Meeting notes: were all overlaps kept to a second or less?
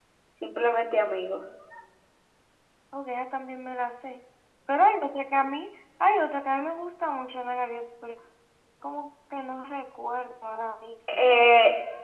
Yes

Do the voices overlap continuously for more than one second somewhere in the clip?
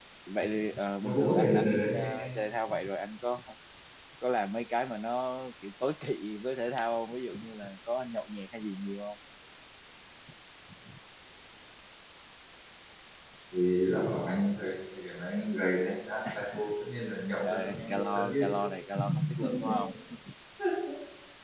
Yes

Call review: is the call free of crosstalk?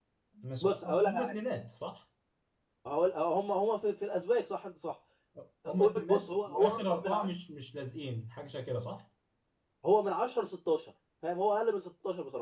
No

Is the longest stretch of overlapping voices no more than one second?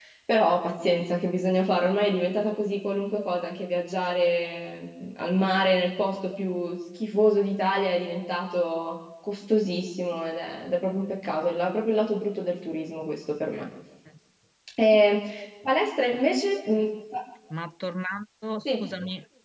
Yes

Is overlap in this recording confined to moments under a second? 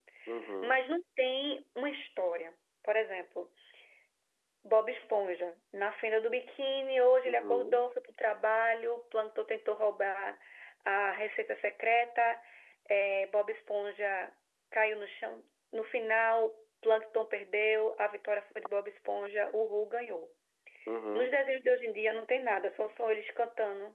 Yes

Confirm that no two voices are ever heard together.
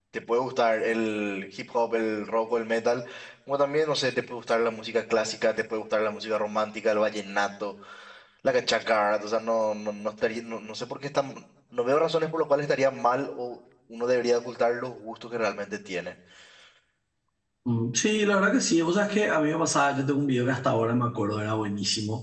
Yes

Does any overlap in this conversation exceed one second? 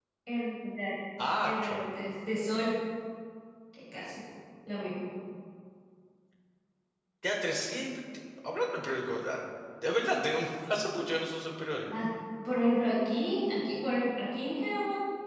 No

